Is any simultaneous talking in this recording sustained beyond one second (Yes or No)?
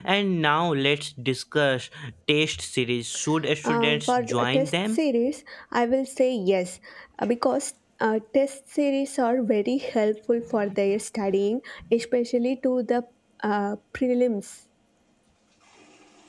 Yes